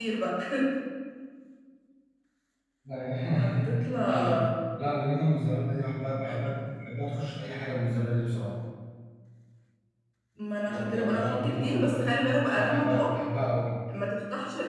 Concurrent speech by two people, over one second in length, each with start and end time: 10.7-13.1

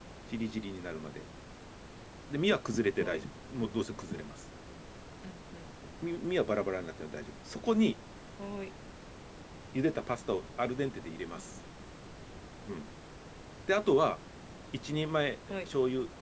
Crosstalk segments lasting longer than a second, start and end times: none

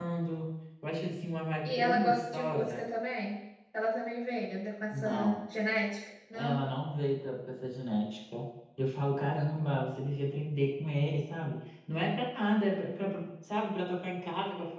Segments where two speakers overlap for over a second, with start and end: 1.6-2.9

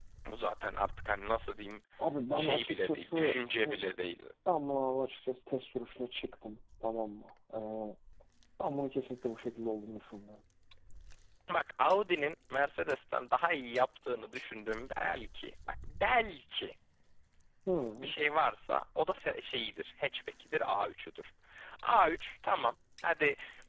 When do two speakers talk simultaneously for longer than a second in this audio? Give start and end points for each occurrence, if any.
2.3-3.8

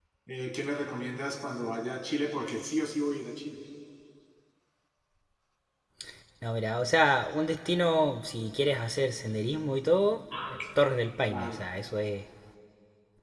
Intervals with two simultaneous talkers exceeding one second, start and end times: none

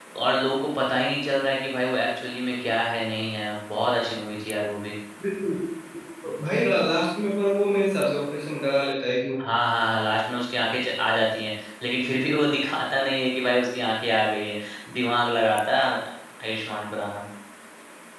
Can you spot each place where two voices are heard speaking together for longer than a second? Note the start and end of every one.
none

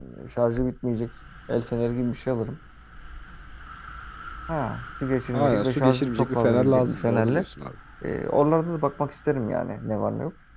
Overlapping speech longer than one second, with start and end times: 5.3-7.4

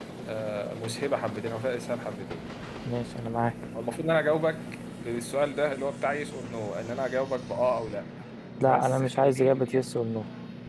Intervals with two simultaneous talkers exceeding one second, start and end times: 8.6-9.8

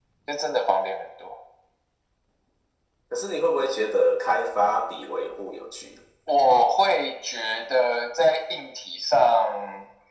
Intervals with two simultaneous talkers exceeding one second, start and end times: none

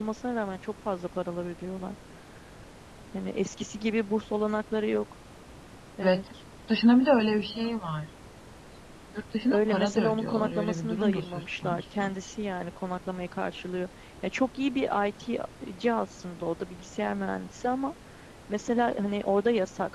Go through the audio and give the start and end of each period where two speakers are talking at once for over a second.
9.5-12.1

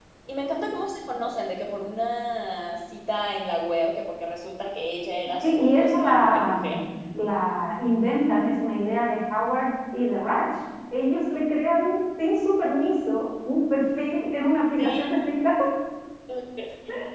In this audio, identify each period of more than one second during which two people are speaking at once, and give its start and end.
5.4-6.8

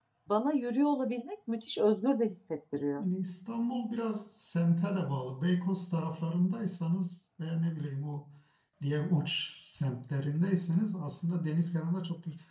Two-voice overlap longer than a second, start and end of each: none

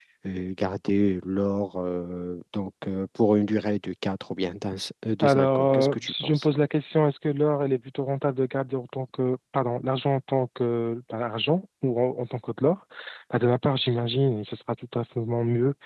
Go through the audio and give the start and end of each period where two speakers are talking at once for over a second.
5.2-6.5

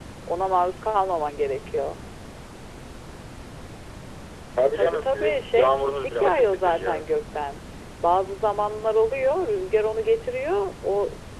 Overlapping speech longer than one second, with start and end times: 4.7-7.1

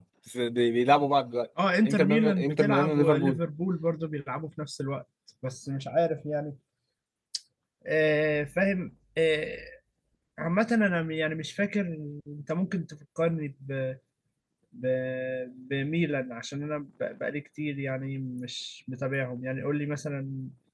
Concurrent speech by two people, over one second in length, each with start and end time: 1.9-3.4

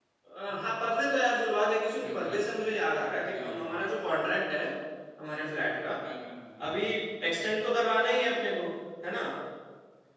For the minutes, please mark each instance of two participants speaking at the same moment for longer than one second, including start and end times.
none

